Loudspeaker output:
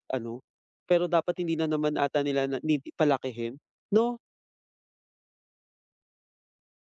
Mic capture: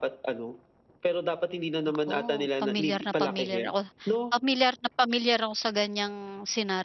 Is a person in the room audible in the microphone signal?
Yes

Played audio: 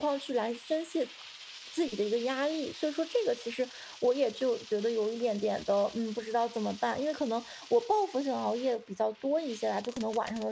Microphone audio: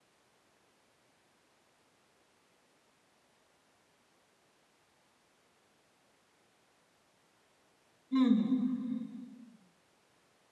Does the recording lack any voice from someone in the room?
No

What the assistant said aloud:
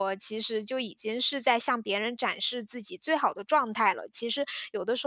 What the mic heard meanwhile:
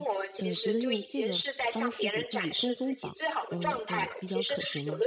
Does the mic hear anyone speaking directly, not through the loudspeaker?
Yes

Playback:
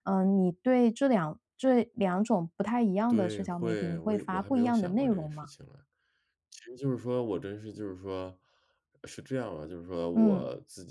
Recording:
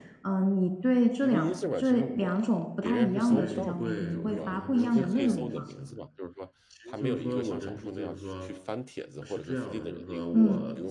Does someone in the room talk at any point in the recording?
Yes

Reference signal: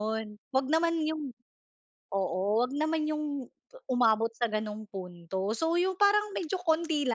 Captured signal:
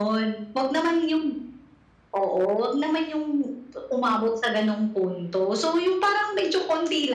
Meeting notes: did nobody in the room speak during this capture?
Yes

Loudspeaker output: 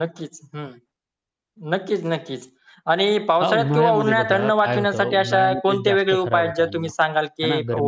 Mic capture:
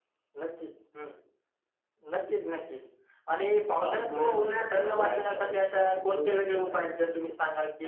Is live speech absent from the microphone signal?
No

